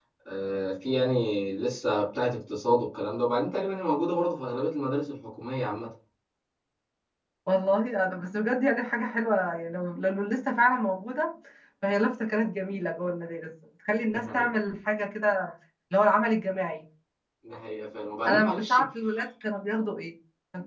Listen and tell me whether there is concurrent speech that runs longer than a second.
No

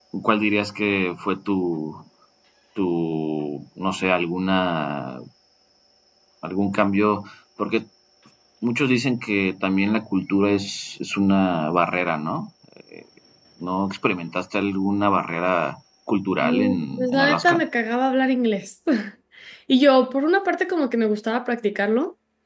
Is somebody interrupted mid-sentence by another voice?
Yes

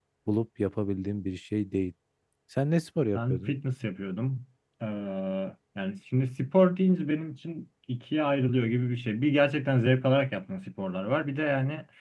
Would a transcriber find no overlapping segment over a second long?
Yes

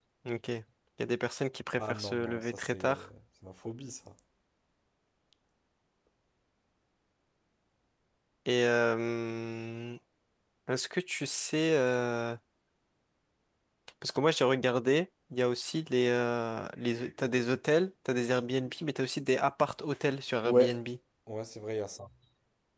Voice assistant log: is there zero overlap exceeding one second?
No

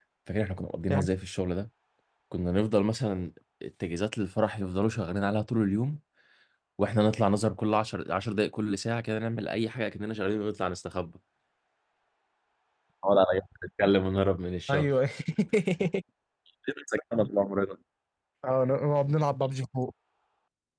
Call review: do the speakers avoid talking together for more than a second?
Yes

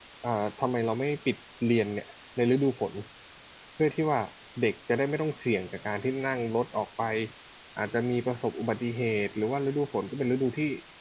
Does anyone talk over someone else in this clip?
No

